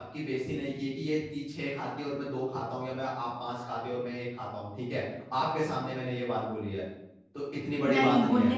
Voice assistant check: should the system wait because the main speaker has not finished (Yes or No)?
No